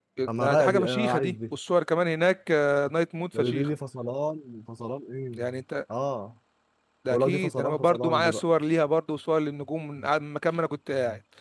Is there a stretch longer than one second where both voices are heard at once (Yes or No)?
Yes